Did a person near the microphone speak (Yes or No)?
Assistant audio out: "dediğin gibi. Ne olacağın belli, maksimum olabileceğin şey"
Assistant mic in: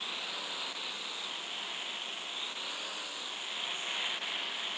No